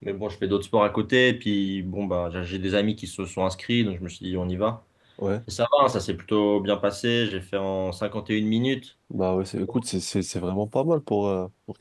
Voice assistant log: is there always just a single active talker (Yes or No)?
Yes